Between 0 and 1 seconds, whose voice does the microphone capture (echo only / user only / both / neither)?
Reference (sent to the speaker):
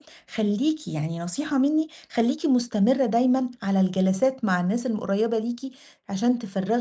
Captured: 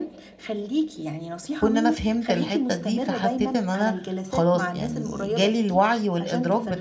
echo only